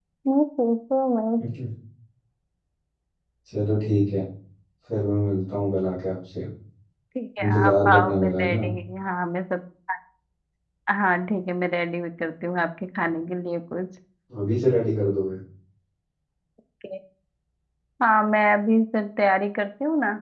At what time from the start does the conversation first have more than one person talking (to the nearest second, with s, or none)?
7 s